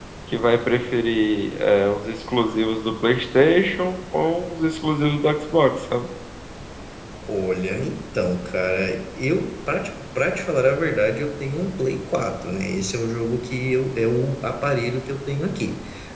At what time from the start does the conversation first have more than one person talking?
none

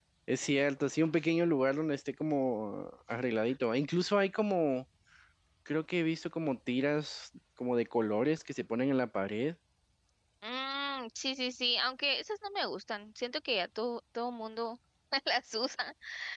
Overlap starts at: none

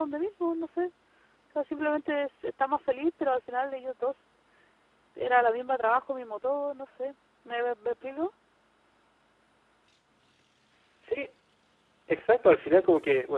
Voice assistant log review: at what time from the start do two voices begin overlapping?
none

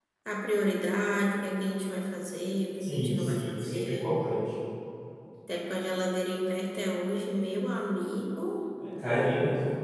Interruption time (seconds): 3 s

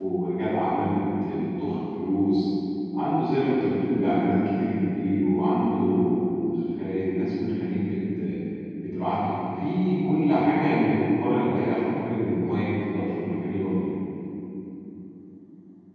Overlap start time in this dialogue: none

